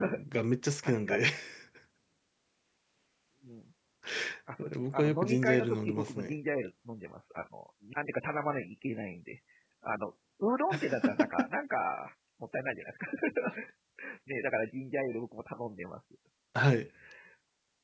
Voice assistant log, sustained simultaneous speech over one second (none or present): present